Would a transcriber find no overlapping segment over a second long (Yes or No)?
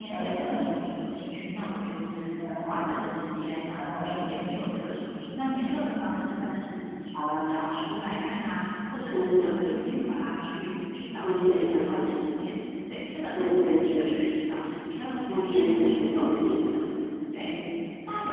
No